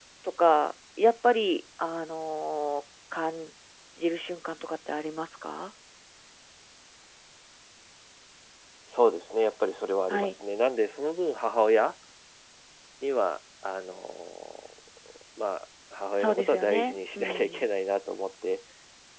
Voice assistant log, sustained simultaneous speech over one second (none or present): present